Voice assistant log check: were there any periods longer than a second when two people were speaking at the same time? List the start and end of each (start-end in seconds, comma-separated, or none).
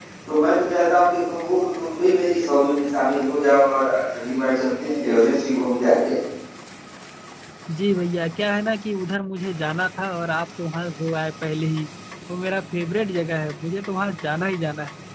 none